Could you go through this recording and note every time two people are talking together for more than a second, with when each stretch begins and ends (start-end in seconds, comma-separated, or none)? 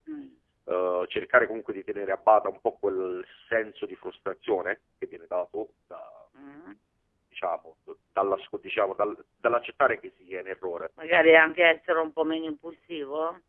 none